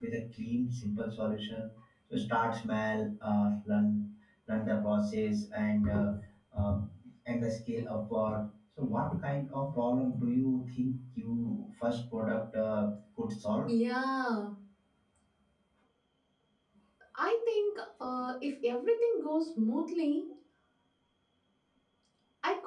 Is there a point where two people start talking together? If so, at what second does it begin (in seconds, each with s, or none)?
none